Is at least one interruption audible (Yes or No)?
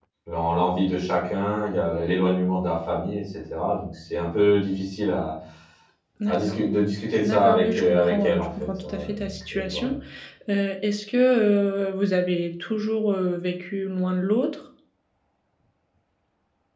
Yes